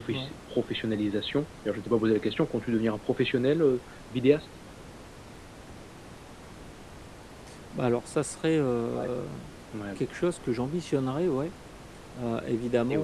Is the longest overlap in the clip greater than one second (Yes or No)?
No